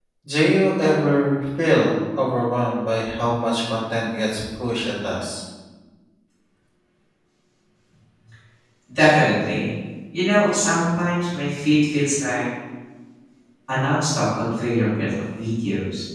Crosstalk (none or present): none